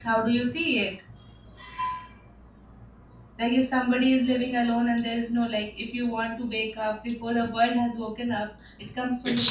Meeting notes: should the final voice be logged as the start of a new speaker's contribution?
Yes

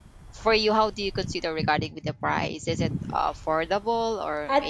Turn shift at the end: Yes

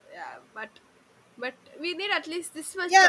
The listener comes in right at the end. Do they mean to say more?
Yes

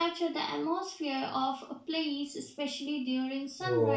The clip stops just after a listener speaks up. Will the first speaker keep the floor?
No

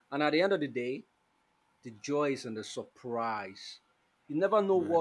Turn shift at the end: No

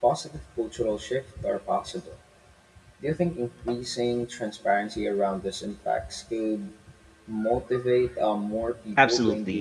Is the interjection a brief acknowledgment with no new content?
No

